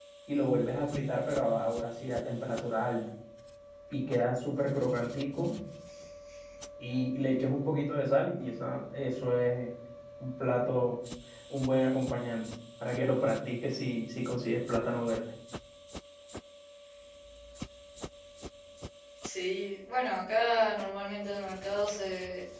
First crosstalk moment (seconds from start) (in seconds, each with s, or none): none